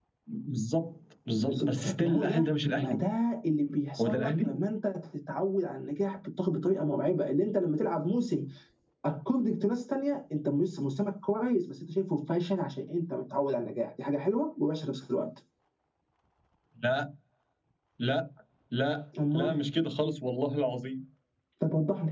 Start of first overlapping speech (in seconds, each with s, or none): 1.3 s